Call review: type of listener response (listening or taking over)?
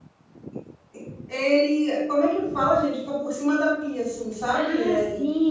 taking over